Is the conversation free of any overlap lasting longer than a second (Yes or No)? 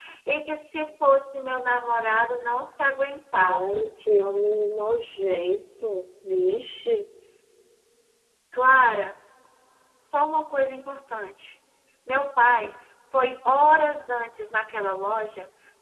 Yes